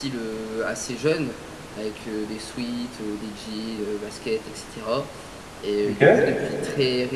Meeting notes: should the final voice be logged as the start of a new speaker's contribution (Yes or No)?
No